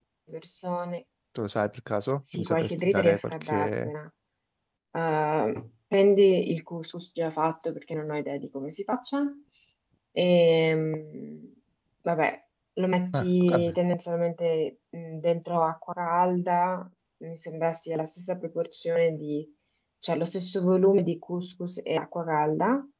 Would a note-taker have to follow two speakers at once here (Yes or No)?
Yes